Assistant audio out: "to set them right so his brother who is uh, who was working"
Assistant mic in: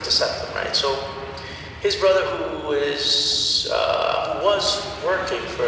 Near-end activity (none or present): none